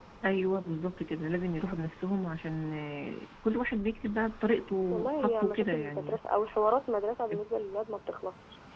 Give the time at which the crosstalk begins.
4.9 s

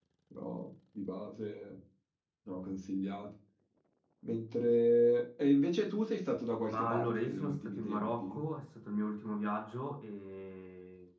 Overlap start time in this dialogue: 6.7 s

